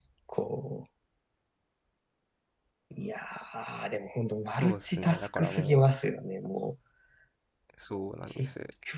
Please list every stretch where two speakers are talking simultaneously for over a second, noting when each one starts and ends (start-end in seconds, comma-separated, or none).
4.5-5.8